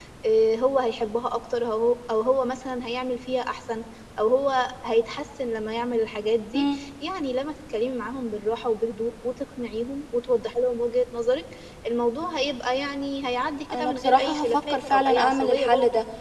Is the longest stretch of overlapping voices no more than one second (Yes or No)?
No